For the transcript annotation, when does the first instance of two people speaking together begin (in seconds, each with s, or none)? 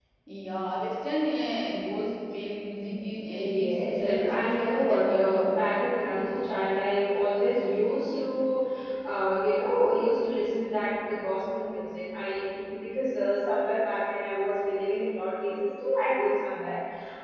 3.3 s